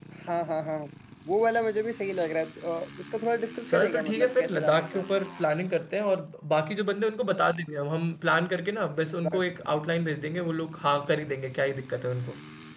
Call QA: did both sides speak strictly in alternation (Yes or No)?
No